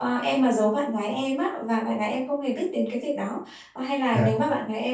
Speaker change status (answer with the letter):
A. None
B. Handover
A